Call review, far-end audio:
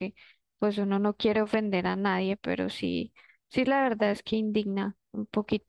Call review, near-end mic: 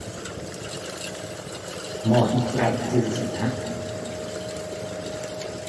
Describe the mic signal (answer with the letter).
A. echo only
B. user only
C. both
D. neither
B